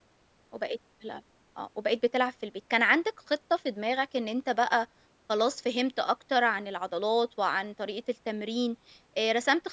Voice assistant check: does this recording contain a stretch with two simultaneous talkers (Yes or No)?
No